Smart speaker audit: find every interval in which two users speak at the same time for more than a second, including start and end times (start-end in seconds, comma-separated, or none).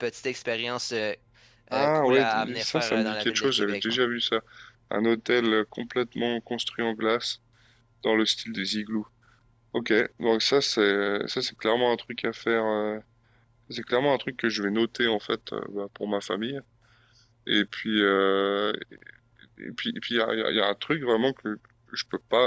1.7-4.0